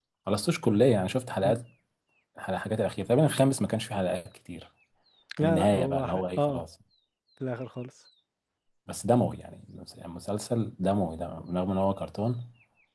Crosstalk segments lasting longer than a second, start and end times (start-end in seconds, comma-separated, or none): 5.4-6.6